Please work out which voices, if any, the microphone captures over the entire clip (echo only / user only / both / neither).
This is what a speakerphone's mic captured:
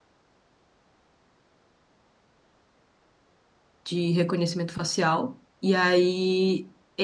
user only